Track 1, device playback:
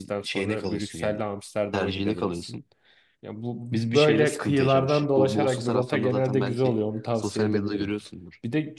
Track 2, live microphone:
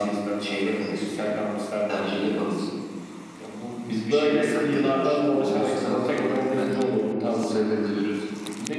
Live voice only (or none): none